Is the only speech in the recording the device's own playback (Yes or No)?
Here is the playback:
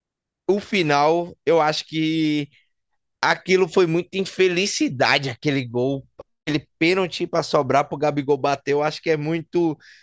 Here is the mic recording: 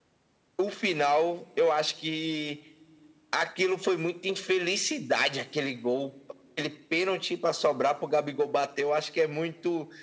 Yes